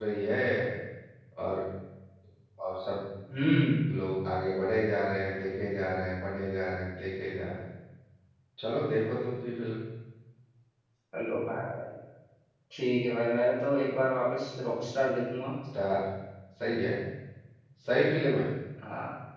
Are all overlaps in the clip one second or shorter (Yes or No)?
Yes